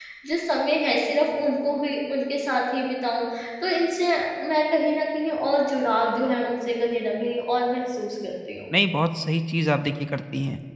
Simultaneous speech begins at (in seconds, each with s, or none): none